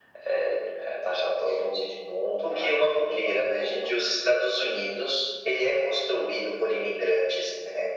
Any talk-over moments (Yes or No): Yes